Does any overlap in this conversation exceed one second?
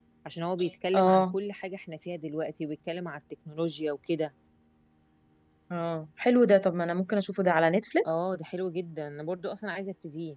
No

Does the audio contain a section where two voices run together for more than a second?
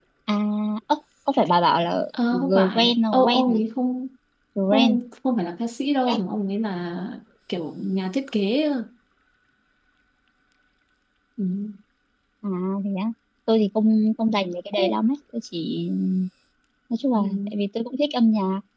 Yes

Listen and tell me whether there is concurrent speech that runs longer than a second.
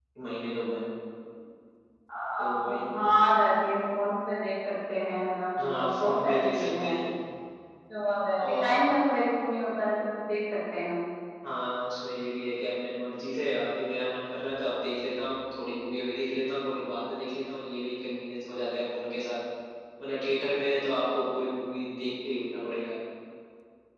Yes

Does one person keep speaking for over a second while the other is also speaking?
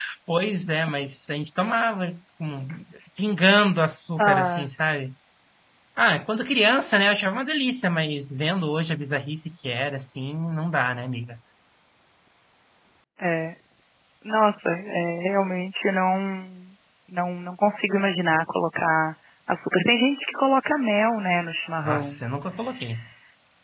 No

